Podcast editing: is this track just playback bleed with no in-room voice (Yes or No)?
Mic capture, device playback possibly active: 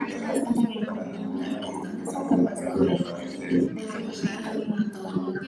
No